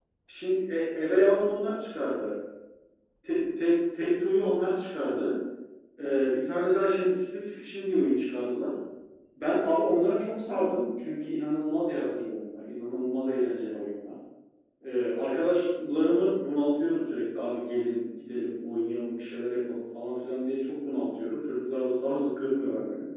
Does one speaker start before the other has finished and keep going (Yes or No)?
No